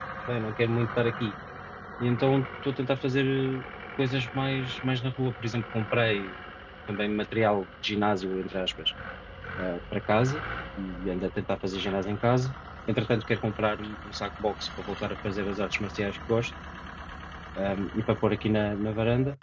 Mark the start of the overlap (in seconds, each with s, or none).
none